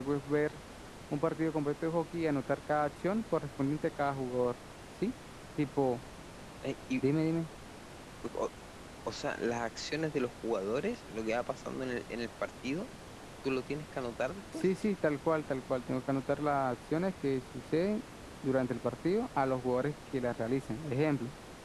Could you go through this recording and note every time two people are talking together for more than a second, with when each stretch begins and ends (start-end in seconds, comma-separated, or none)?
none